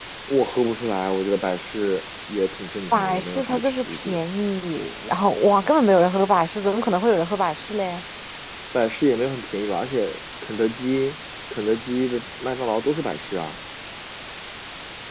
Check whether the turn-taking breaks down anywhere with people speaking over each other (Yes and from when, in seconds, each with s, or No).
Yes, from 2.9 s